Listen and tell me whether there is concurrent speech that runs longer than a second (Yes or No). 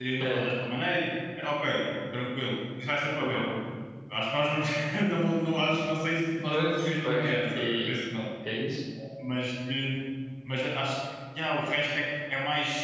Yes